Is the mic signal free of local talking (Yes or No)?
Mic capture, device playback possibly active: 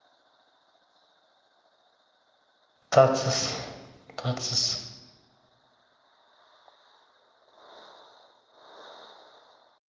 No